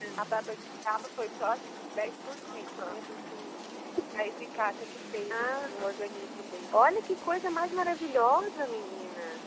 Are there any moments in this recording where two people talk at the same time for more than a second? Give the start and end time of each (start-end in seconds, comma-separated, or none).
none